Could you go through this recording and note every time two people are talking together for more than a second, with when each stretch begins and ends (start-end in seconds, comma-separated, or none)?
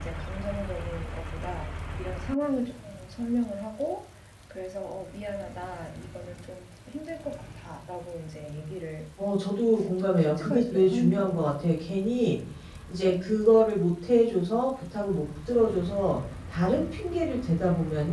10.0-11.5